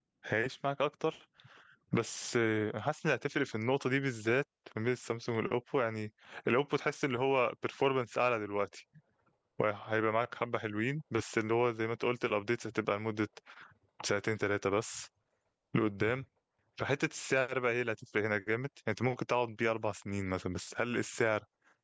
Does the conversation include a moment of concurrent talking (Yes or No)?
No